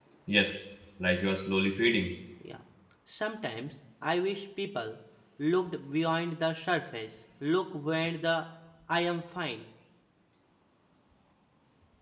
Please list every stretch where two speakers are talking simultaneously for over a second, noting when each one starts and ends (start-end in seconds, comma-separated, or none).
none